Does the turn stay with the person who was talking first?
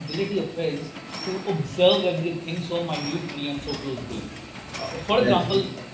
Yes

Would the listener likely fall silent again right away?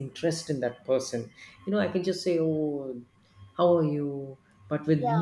Yes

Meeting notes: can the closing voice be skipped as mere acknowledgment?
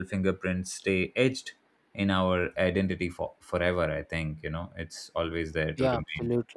No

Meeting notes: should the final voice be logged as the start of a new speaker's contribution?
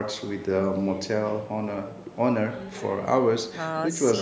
Yes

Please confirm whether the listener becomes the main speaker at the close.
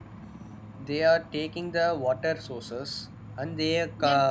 Yes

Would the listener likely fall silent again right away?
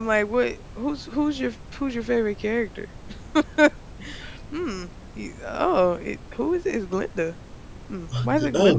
No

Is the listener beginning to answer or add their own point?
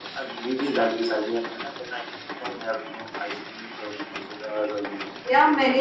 Yes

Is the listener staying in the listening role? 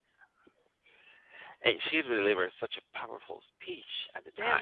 No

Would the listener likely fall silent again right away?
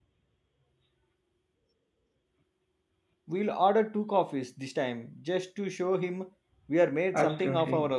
No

